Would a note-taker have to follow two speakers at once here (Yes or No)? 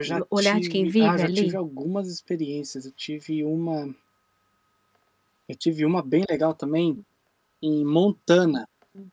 Yes